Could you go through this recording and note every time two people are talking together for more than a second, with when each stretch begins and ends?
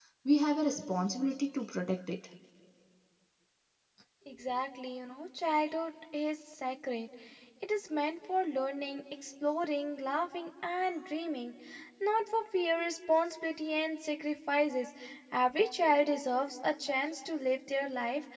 none

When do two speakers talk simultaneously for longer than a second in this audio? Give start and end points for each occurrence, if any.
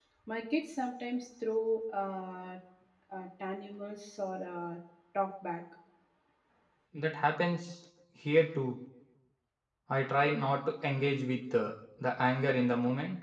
none

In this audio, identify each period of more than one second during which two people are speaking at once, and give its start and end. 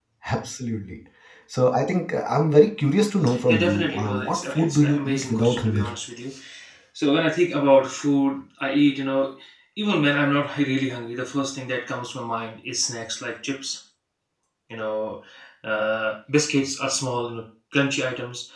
3.5-5.8

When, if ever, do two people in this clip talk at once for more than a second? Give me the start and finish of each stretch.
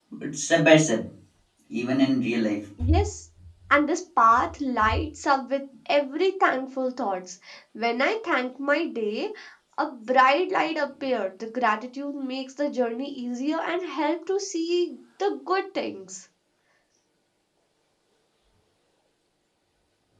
none

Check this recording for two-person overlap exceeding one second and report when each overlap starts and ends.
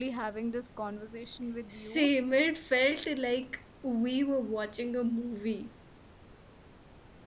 none

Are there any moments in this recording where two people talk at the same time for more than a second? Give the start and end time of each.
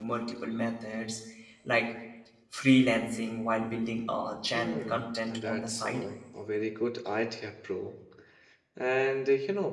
4.5-6.0

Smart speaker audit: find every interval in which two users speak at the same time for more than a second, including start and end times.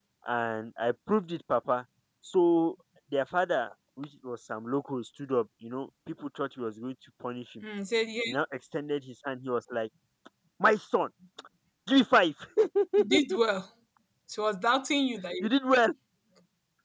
none

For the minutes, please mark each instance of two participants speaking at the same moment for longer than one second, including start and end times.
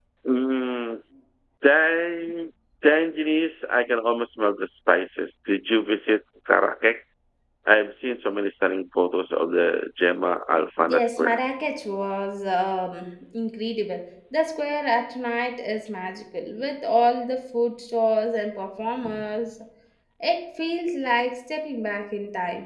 none

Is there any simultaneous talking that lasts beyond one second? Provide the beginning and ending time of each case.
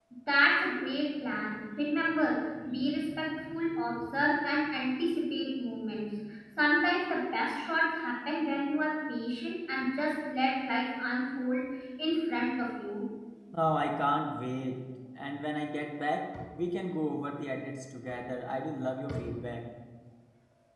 none

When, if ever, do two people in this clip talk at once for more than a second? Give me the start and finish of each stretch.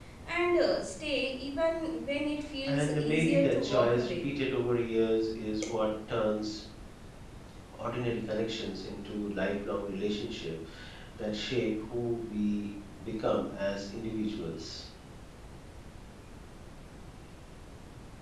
2.7-4.3

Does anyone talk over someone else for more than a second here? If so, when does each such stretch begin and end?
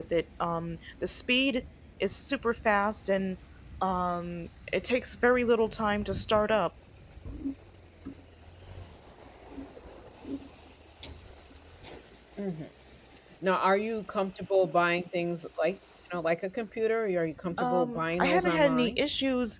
17.6-19.0

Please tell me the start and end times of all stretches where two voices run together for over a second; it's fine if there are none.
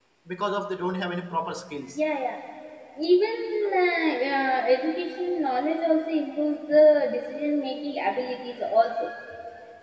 none

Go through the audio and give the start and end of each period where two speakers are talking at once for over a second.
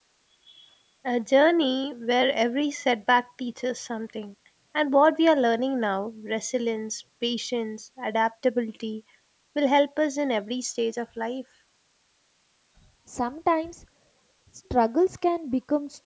none

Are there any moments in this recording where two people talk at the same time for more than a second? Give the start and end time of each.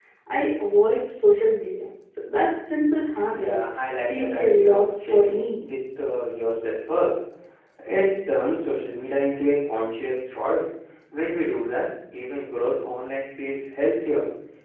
4.0-5.6

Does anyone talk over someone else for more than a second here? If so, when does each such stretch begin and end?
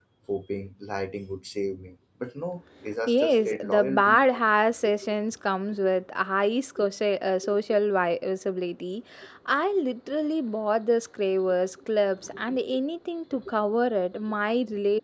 3.1-4.3

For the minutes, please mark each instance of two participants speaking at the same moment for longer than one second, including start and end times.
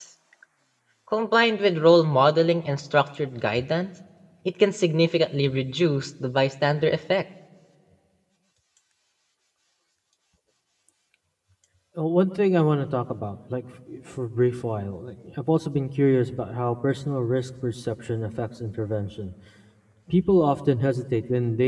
none

